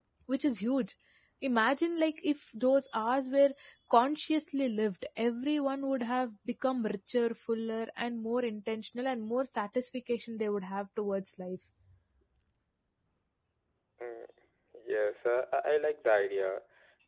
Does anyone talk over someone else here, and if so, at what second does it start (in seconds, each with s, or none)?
none